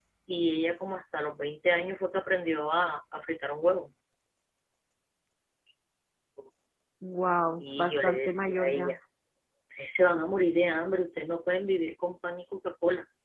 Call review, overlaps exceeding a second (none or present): present